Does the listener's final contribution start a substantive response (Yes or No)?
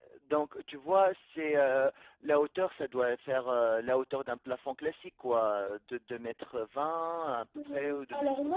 Yes